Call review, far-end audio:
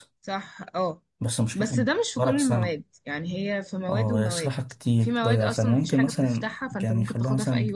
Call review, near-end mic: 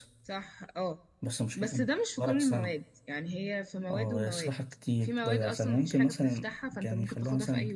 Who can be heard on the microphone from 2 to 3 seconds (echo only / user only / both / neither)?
echo only